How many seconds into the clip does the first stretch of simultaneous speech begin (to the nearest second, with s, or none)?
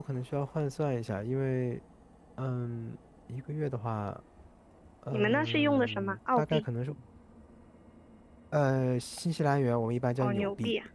5 s